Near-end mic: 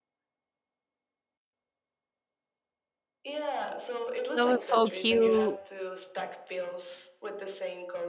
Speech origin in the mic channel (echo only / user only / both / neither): both